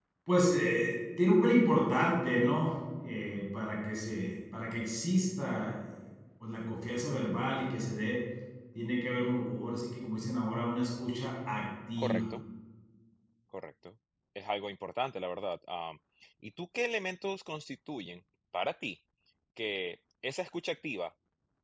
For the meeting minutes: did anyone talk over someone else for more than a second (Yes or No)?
No